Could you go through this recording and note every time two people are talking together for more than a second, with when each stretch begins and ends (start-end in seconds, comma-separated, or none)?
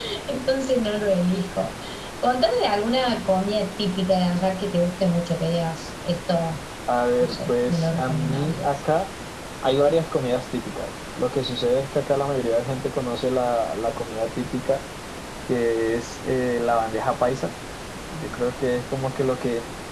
7.2-8.7